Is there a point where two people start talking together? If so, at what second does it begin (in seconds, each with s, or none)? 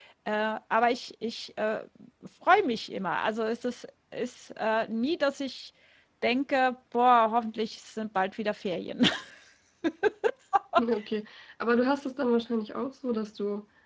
none